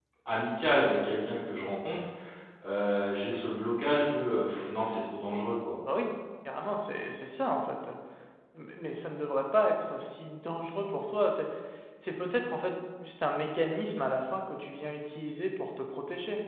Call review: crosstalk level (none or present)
none